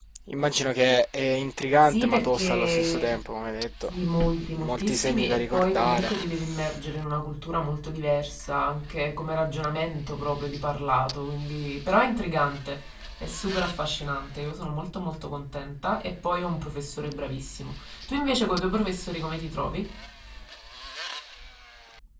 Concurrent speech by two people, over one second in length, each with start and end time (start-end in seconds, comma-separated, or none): 1.8-3.2, 4.5-6.1